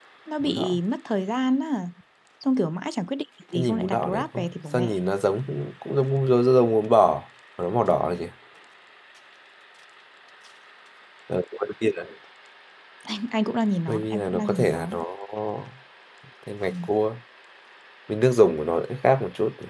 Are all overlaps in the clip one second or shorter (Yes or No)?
No